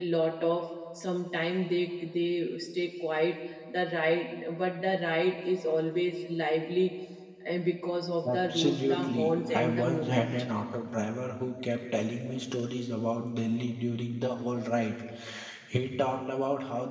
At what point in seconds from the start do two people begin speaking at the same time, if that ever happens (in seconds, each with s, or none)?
8.2 s